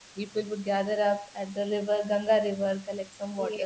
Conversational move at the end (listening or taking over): listening